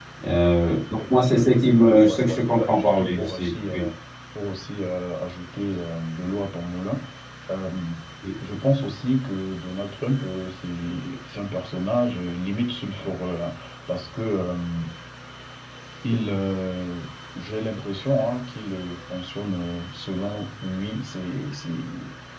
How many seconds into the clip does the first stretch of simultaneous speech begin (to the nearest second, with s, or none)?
1 s